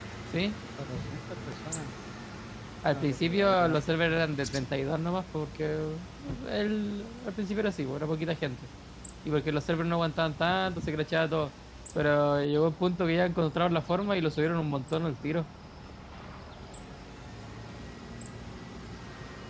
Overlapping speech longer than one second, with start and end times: 2.8-4.2

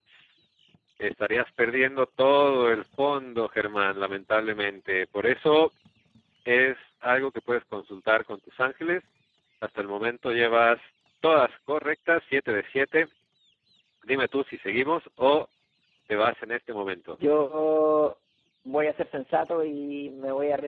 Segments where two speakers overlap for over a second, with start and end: none

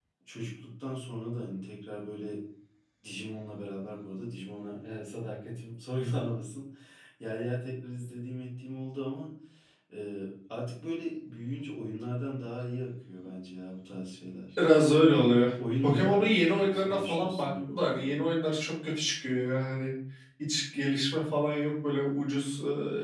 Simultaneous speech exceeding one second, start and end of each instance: 15.8-18.1

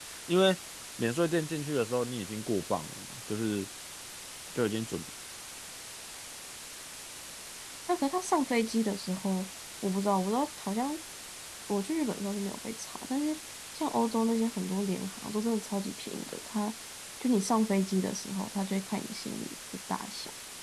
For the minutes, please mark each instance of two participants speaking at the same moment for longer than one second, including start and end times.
none

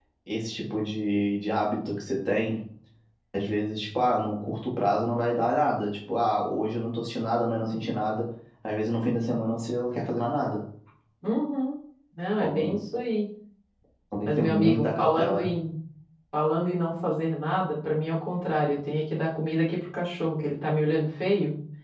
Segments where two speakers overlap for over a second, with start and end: 14.2-15.5

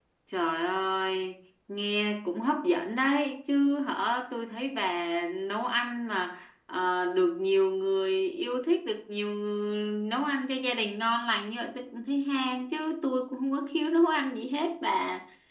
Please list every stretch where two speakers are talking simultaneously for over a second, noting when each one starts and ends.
none

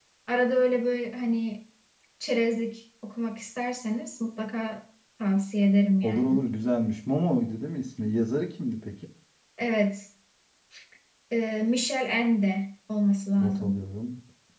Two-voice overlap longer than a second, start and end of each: none

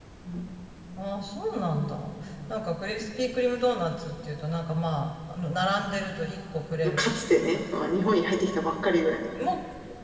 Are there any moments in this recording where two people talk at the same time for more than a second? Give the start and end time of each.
none

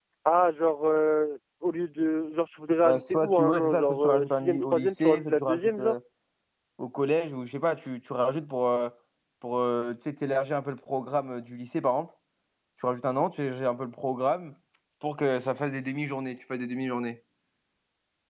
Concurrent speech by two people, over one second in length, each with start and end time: 2.8-5.9

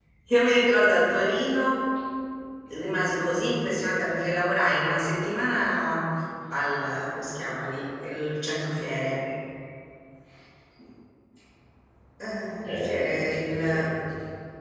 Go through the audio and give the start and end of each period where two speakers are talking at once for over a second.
12.6-13.9

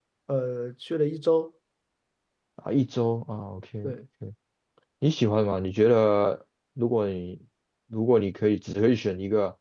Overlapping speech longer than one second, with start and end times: none

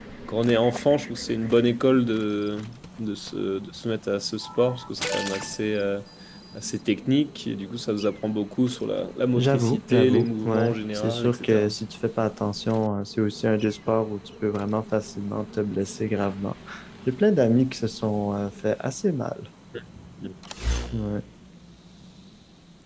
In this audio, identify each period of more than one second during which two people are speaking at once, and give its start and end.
9.4-11.7

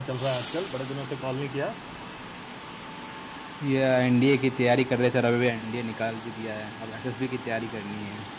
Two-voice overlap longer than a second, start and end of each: none

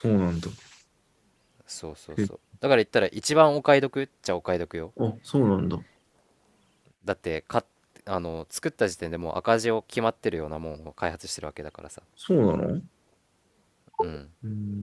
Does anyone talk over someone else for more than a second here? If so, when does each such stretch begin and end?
none

